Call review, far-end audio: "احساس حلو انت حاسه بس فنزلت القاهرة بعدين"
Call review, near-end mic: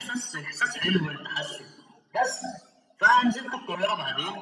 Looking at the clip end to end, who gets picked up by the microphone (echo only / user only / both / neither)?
echo only